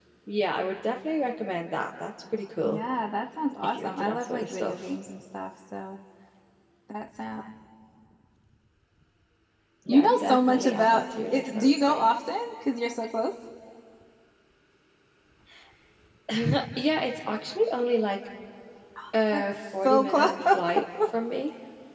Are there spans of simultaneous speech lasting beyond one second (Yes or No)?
Yes